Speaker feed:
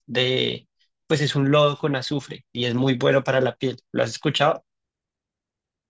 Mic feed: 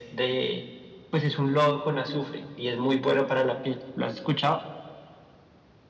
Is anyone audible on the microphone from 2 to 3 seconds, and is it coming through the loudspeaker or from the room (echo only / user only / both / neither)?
echo only